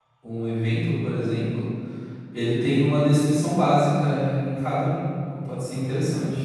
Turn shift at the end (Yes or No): Yes